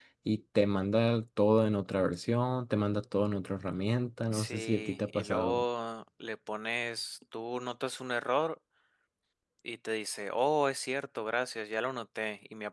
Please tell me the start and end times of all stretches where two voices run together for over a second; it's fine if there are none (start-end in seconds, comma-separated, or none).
4.3-5.6